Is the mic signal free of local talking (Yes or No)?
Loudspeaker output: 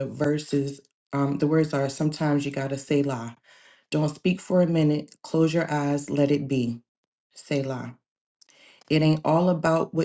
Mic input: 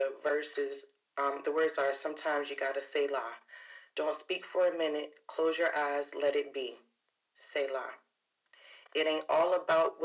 Yes